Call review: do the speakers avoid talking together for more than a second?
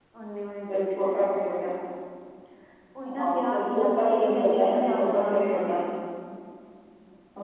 No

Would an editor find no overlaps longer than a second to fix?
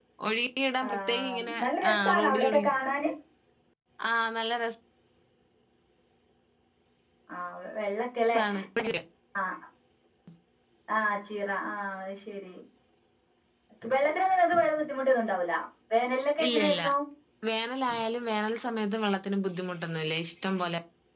No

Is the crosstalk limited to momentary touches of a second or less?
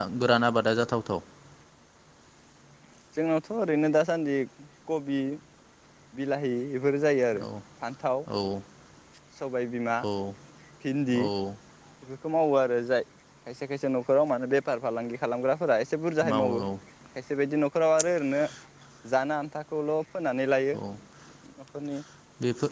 Yes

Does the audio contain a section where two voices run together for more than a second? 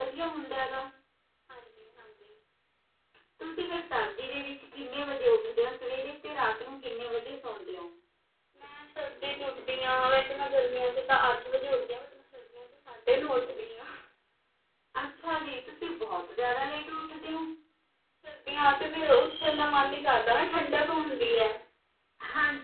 No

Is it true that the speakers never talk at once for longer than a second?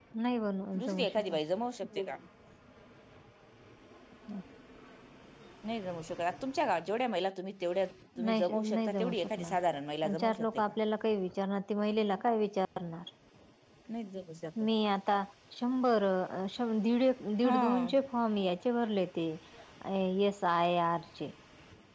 No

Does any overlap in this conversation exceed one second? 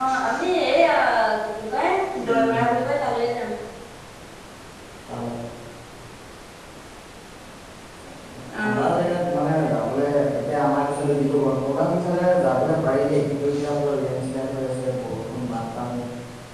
No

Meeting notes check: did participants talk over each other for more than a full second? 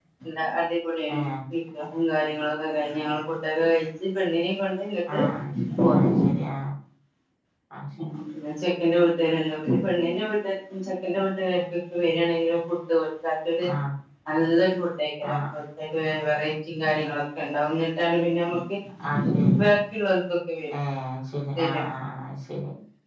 No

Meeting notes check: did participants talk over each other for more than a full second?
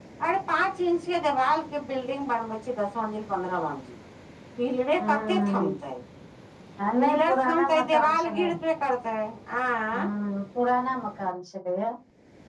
Yes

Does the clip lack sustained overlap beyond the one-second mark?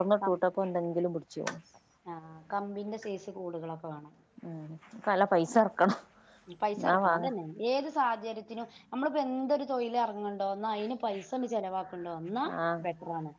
Yes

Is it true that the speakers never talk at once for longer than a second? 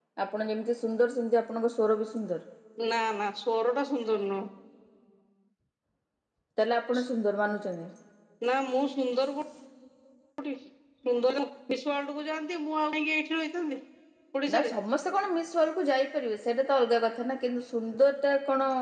Yes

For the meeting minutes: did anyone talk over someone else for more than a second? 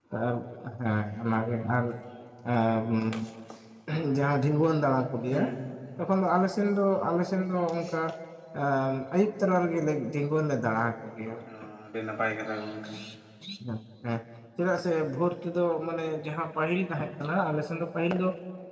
No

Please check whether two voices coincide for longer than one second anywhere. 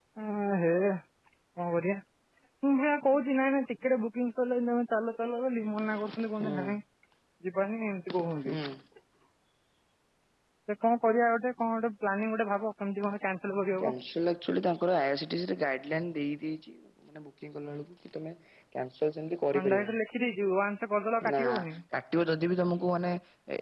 No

